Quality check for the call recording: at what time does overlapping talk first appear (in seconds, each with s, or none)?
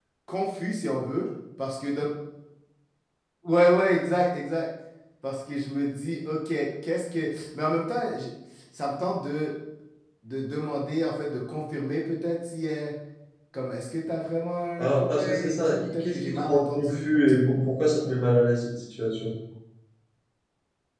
14.8 s